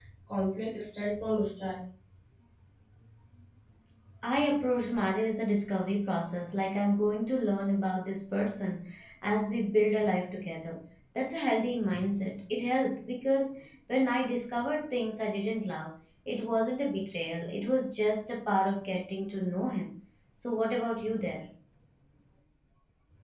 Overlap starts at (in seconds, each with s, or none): none